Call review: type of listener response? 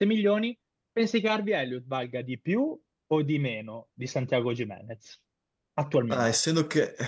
taking over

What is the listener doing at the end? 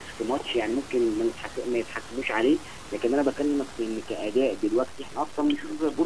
taking over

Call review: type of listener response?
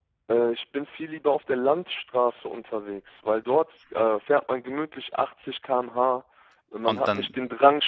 listening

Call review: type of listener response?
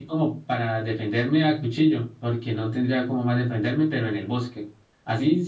listening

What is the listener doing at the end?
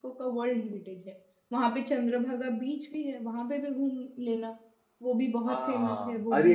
taking over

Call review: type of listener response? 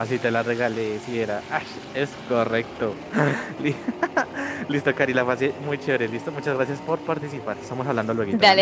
taking over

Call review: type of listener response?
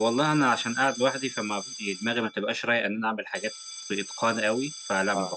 listening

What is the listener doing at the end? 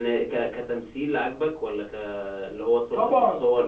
taking over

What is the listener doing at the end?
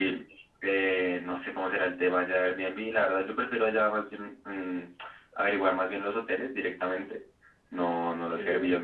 listening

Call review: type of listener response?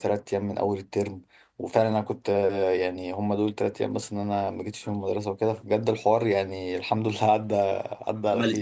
taking over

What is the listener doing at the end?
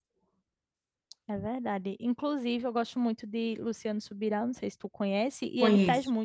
listening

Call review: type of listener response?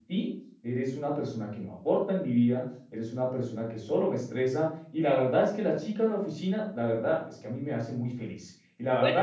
taking over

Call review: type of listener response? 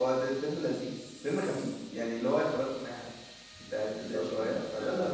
taking over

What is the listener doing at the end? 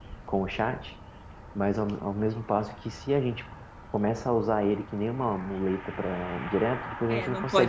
taking over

